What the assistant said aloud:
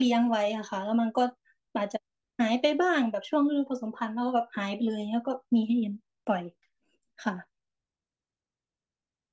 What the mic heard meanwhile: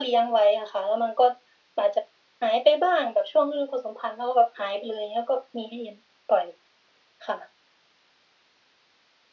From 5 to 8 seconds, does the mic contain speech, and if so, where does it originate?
echo only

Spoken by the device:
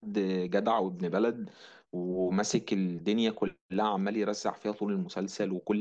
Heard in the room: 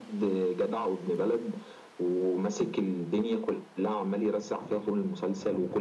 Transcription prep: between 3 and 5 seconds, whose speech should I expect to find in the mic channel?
echo only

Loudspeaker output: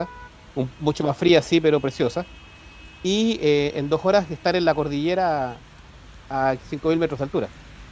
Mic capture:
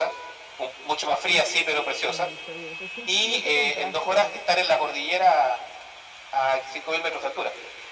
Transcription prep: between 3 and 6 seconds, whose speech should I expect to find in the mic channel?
both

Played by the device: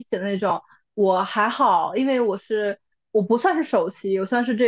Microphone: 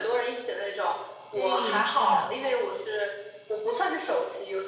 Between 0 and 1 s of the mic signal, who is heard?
echo only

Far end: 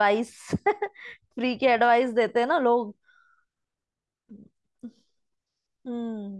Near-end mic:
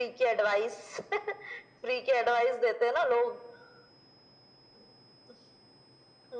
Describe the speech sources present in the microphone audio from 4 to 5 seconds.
neither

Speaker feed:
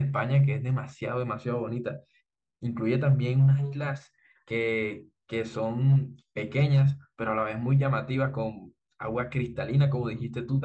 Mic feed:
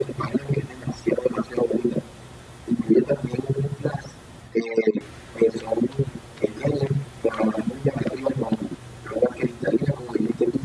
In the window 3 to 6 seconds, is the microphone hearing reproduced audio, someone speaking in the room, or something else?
echo only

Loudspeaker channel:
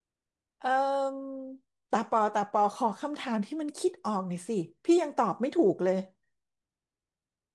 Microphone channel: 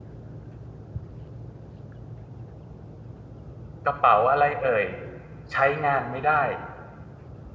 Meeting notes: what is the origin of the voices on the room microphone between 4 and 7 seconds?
user only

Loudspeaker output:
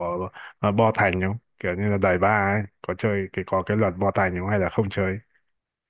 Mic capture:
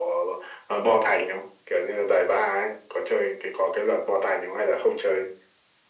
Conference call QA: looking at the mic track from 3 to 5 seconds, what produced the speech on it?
echo only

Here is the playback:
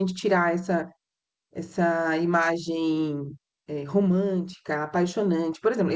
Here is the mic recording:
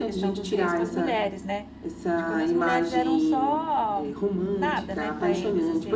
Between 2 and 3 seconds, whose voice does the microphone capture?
both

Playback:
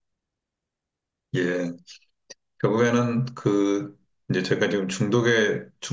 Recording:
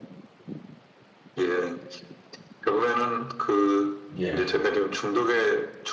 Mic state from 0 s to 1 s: neither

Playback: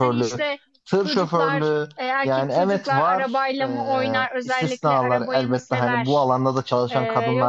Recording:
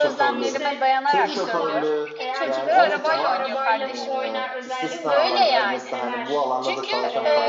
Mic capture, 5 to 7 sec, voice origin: both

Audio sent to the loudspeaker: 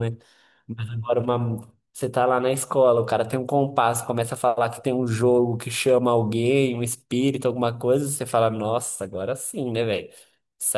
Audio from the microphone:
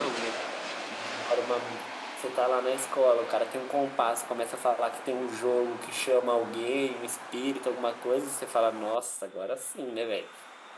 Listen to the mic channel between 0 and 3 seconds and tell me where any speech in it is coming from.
echo only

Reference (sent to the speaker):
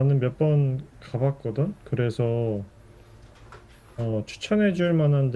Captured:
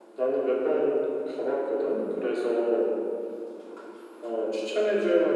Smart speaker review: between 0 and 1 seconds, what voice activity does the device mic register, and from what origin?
echo only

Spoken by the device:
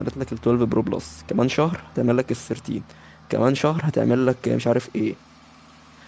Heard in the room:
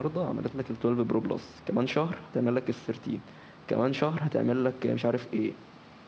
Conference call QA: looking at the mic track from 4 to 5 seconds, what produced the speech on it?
echo only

